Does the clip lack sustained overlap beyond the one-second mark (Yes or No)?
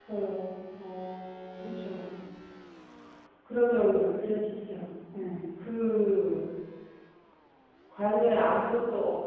Yes